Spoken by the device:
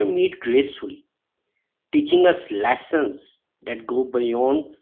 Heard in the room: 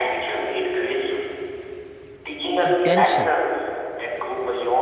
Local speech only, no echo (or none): pretension,